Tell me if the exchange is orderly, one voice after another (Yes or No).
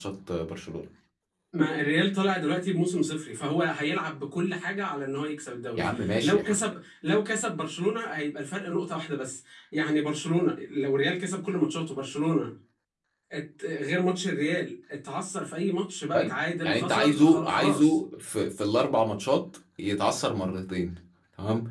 No